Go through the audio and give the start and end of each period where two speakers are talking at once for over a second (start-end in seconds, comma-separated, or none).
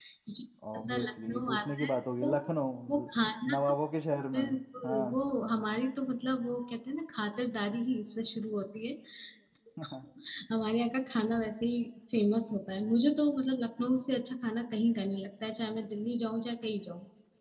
0.7-2.3